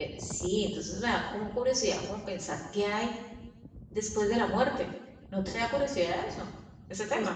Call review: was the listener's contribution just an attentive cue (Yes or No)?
No